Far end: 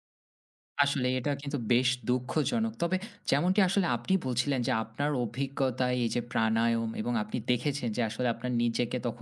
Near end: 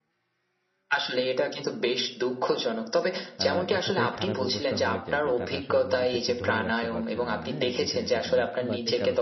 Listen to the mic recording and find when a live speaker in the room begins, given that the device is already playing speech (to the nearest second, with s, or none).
3 s